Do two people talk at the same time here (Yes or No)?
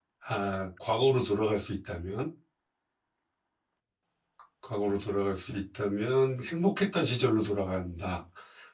No